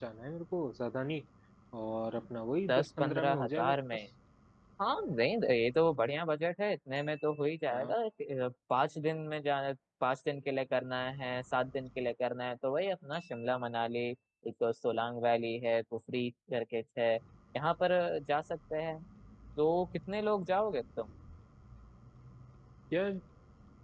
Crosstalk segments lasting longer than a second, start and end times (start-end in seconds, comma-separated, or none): 2.7-4.0